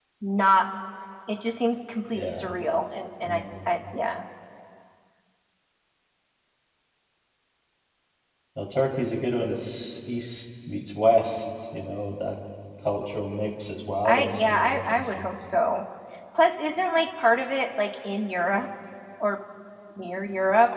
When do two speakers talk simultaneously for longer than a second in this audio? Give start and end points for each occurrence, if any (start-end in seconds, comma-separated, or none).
14.1-15.3